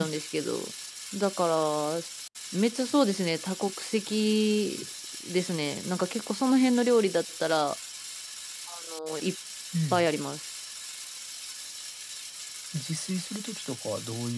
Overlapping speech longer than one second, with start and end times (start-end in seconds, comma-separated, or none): none